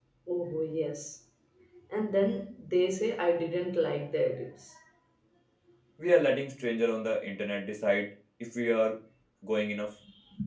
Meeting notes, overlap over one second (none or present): none